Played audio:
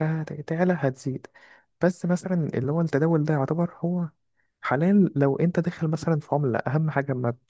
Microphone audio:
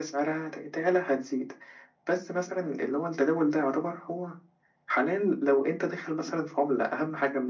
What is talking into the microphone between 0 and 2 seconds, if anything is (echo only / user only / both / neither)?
echo only